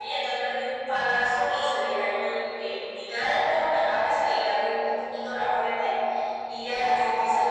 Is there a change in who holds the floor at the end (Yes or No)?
No